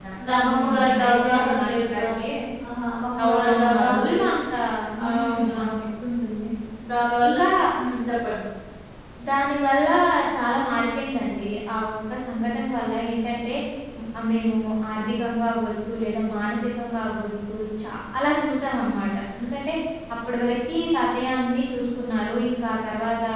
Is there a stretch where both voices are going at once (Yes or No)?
Yes